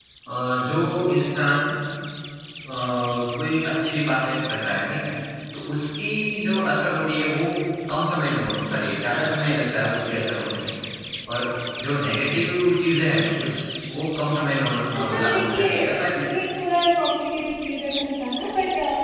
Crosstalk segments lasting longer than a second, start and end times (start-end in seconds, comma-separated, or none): 14.9-16.2